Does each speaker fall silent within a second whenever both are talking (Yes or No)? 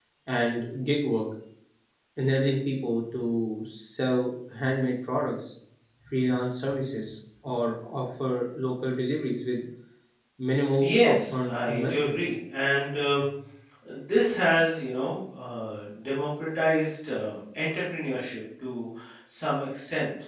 No